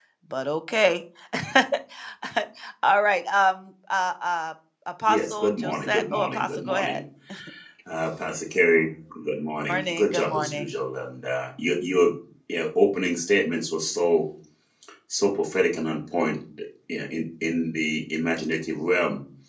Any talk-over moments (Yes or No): Yes